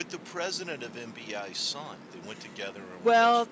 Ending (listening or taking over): taking over